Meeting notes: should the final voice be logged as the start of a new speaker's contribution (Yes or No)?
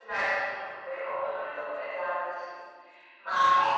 No